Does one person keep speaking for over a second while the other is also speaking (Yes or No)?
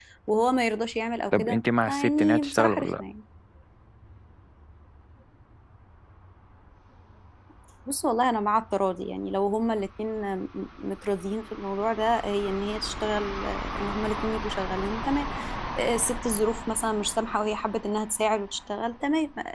Yes